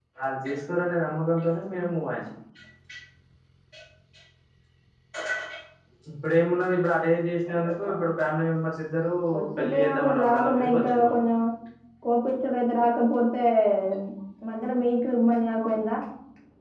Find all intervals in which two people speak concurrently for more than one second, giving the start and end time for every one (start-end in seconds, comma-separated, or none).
9.6-11.2